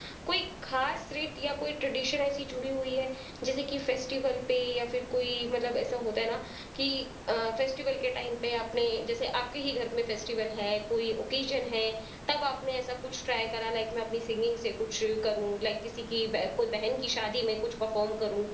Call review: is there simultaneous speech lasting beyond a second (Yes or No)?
No